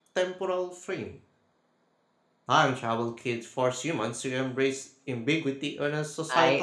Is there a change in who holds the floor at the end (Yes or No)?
Yes